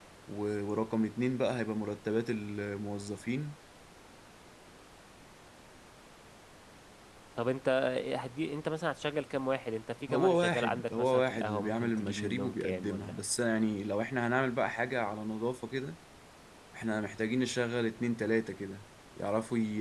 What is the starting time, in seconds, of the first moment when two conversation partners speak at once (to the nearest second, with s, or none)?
10 s